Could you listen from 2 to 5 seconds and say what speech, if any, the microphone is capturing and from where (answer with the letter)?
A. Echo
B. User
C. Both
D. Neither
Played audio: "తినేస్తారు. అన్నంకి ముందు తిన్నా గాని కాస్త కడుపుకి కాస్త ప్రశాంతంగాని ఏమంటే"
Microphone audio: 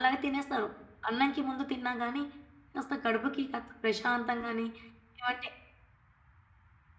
A